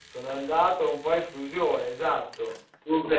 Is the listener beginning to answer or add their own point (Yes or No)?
Yes